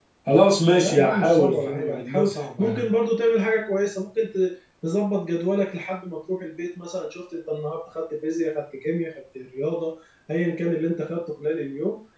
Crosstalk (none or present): present